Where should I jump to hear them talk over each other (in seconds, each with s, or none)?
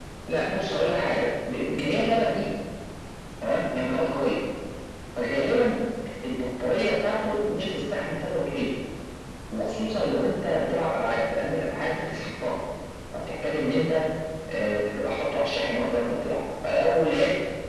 none